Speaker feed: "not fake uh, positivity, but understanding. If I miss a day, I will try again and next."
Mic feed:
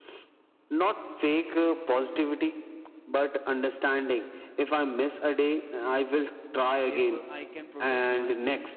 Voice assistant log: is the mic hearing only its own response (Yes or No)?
No